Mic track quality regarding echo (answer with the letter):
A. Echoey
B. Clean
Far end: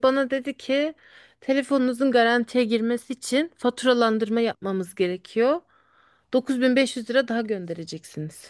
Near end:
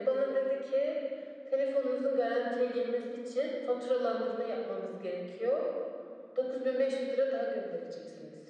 A